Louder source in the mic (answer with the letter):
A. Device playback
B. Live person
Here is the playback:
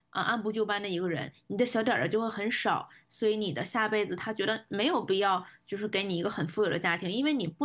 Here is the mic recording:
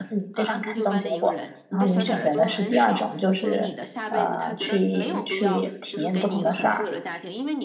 B